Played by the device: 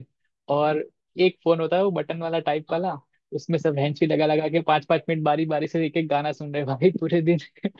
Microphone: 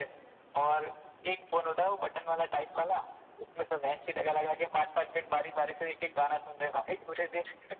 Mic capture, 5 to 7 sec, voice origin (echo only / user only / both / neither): echo only